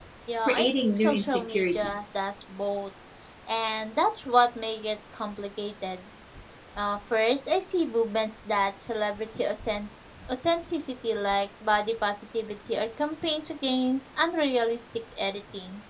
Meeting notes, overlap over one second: present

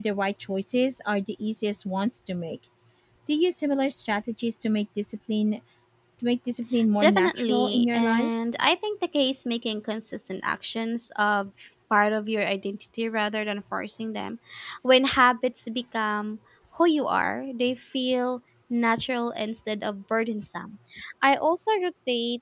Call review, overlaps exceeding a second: present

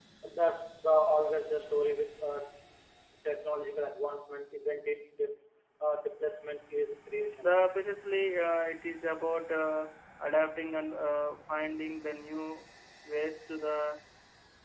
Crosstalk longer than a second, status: none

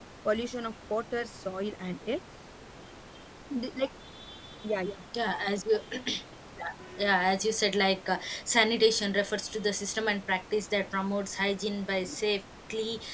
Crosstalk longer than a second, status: none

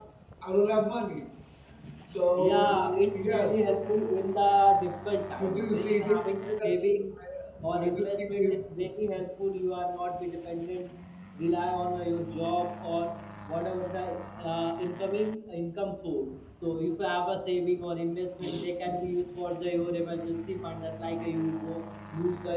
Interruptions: present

